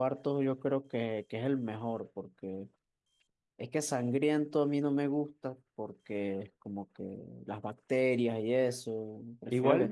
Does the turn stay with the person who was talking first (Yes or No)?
No